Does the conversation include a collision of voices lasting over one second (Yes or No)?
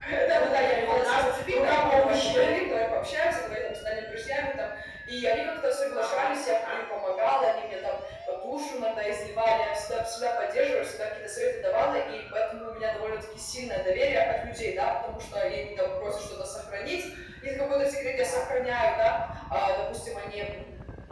Yes